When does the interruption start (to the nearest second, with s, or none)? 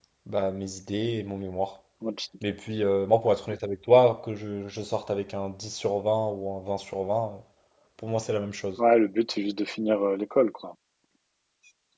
none